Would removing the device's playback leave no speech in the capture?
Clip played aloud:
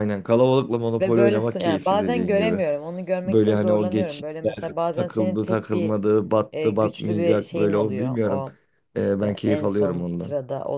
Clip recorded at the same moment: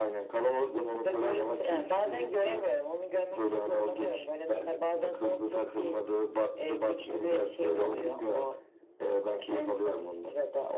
Yes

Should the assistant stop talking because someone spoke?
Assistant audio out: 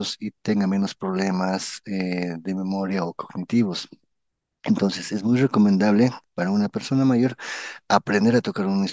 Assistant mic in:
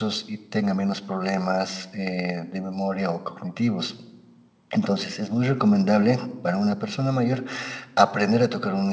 No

